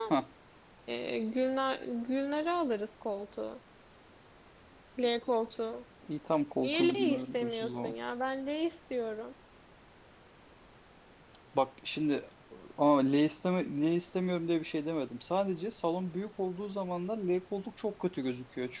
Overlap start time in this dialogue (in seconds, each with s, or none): 6.6 s